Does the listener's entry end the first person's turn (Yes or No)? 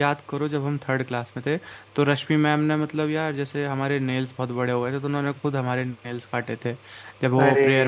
No